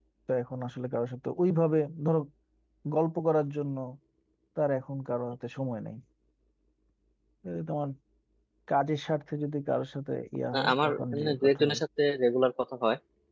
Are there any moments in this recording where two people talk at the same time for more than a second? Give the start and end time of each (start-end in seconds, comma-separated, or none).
10.5-11.8